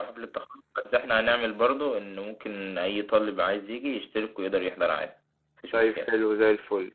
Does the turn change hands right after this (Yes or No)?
Yes